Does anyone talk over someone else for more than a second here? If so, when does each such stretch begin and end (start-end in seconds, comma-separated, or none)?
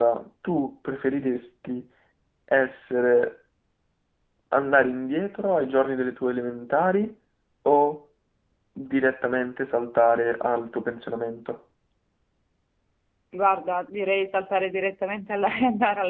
none